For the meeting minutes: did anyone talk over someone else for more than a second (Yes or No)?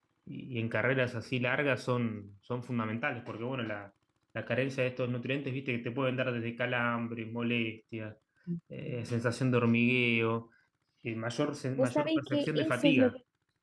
Yes